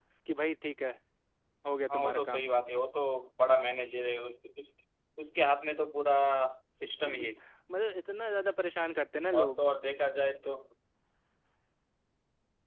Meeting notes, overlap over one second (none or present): none